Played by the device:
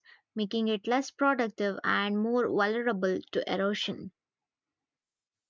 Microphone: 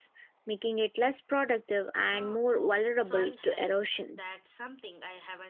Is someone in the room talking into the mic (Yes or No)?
Yes